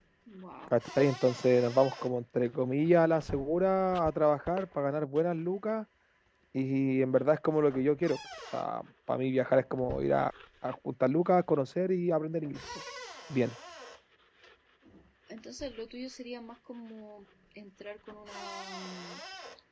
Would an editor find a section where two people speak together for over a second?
No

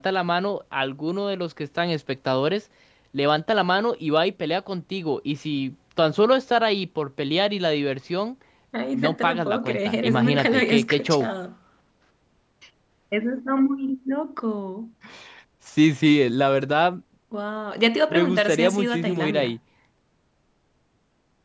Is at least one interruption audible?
Yes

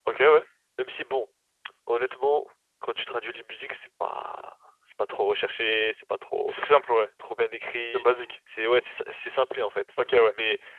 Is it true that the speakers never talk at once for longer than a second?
Yes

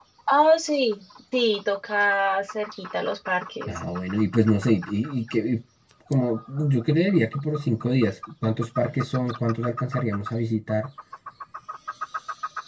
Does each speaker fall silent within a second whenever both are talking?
Yes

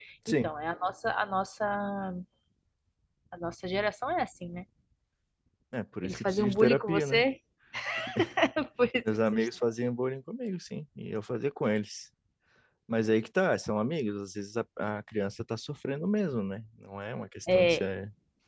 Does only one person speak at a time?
No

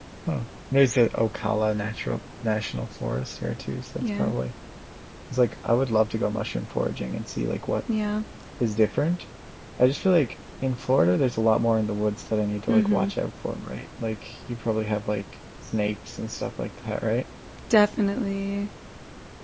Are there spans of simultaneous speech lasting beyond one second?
No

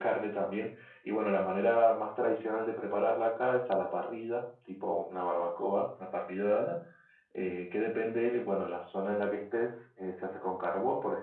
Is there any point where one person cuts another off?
No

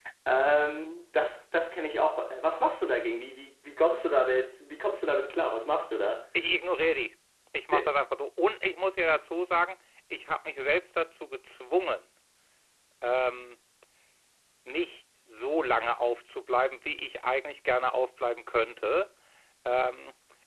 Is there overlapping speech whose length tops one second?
No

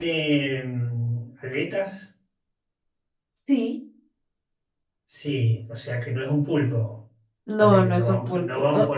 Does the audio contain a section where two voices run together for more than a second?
Yes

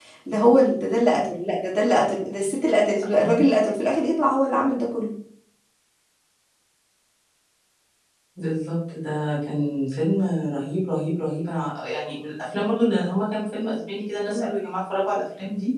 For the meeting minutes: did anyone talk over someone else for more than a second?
No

